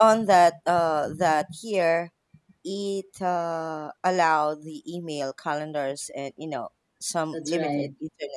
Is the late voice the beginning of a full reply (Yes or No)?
Yes